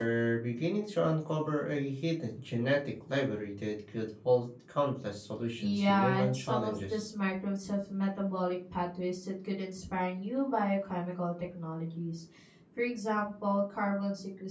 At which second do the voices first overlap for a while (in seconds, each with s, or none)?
5.6 s